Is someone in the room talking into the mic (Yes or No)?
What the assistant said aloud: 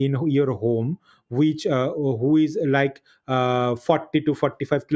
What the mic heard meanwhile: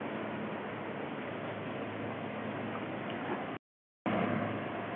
No